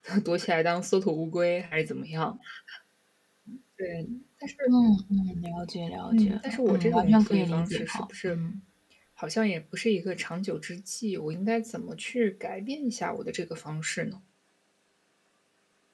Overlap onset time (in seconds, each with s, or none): 6.1 s